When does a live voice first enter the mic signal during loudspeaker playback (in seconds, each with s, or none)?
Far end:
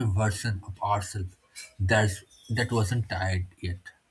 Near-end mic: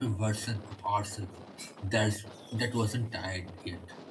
none